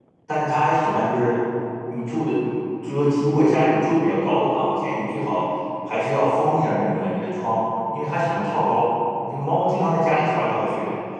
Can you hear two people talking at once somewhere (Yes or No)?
No